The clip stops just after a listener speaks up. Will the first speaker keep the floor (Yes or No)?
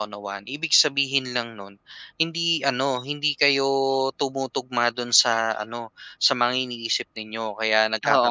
No